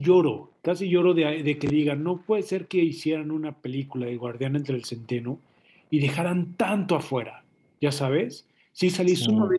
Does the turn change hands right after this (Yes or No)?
No